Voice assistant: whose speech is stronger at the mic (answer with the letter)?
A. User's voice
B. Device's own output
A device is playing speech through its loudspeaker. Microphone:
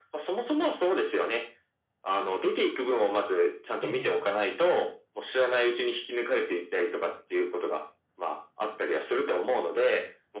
B